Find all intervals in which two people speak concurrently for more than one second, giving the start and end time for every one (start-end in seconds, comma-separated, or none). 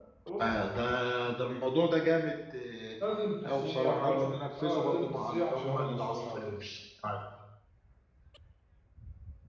3.5-6.6